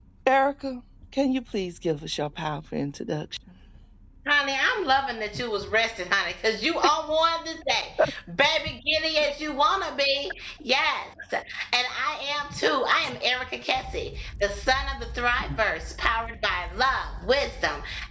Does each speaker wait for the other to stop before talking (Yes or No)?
Yes